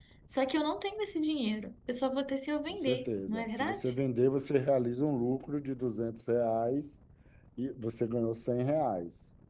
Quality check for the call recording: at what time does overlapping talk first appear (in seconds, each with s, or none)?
2.7 s